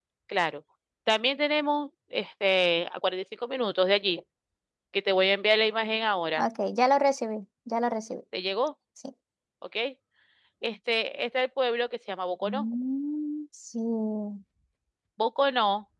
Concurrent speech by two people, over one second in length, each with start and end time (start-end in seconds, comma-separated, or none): none